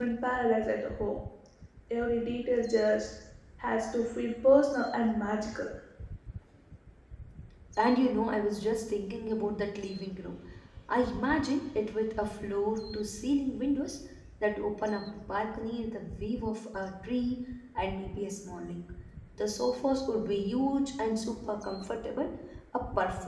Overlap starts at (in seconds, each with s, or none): none